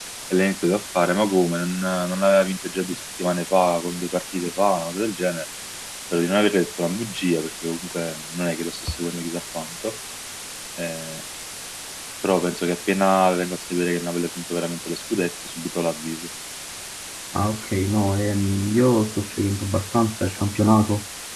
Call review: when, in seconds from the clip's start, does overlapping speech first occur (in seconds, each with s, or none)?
none